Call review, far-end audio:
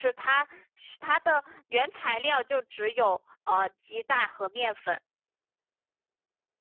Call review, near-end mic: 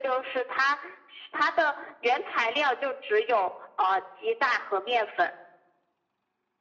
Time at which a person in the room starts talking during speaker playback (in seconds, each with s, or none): none